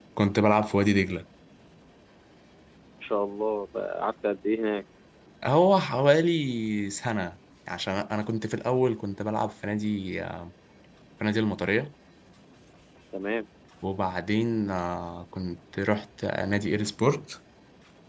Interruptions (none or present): none